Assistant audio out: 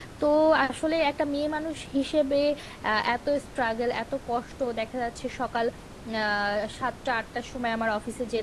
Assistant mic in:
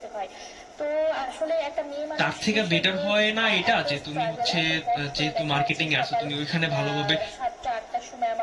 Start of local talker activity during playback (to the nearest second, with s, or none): 2 s